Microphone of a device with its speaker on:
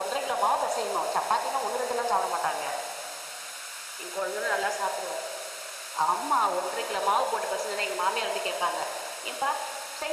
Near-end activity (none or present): none